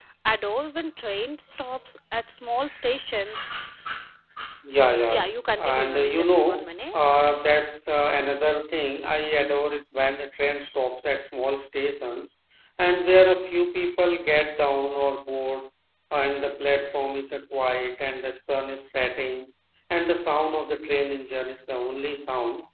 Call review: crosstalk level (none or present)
present